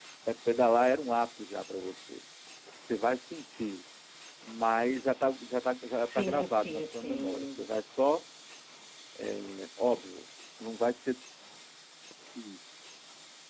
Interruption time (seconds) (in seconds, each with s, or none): 6.0 s